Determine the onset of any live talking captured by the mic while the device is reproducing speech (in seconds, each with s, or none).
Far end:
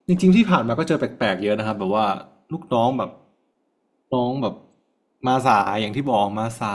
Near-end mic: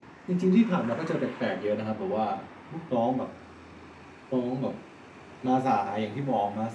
none